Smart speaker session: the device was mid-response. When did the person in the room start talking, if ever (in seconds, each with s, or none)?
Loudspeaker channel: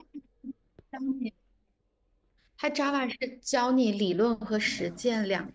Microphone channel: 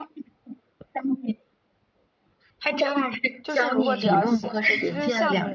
3.4 s